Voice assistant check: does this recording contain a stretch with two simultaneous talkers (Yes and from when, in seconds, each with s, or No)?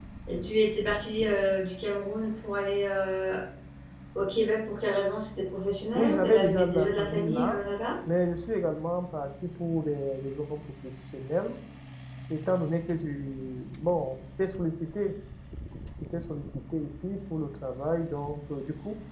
Yes, from 6.0 s